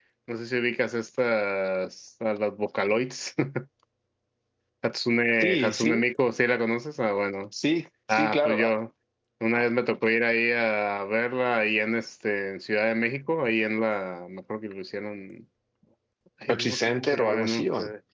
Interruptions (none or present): present